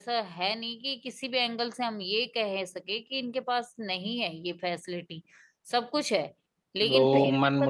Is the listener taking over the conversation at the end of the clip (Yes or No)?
Yes